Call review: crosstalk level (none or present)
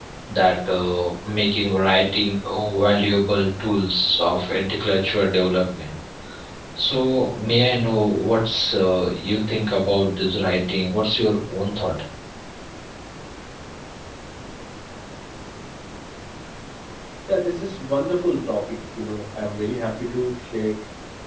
none